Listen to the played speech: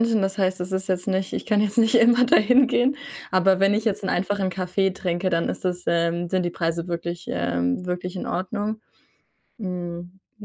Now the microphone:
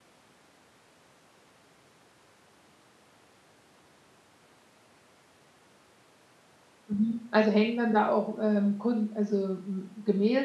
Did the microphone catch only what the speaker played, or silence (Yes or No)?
No